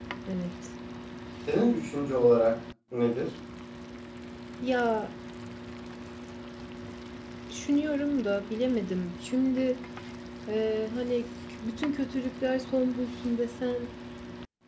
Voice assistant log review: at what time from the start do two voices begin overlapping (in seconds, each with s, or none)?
none